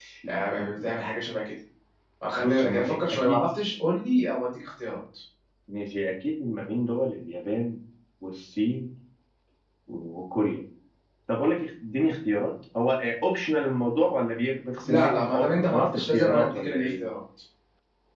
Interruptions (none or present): present